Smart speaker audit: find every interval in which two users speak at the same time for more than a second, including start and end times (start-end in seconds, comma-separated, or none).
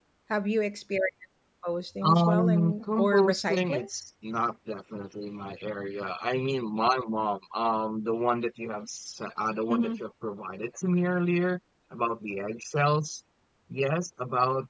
2.0-3.9